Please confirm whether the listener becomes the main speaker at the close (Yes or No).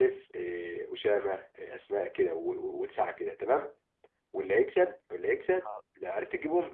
No